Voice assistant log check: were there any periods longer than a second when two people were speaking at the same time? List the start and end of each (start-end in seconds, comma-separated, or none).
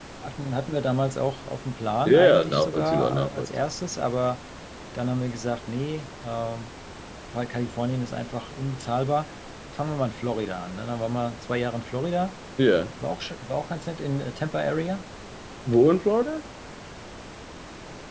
2.0-3.5